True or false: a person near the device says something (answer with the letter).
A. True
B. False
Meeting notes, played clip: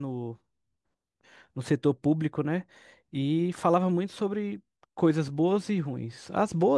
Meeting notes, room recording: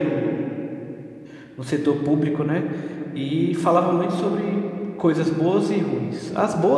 B